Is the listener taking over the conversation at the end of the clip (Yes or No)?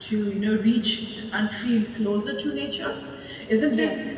No